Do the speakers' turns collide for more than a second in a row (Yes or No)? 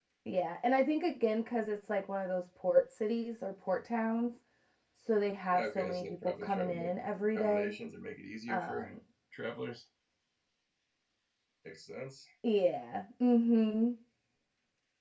Yes